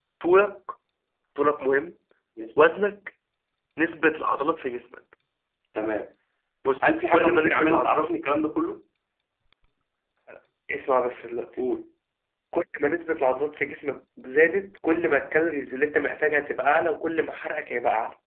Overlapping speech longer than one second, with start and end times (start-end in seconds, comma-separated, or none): 6.8-8.1